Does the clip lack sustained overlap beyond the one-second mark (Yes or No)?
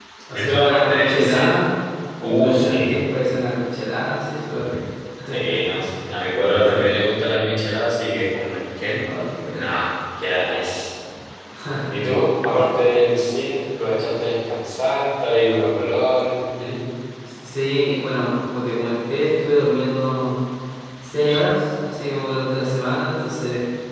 No